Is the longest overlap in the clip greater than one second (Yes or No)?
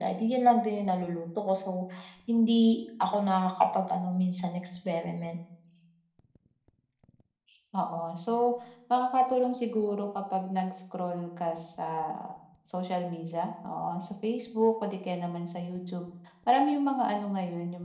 No